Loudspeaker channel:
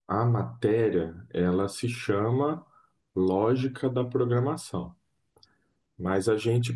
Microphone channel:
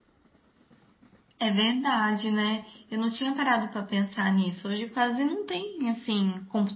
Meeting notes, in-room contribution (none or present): present